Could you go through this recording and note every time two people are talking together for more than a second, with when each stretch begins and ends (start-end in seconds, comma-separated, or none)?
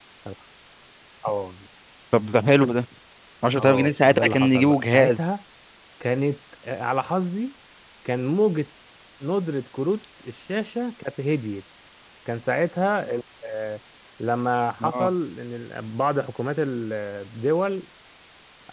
3.6-5.2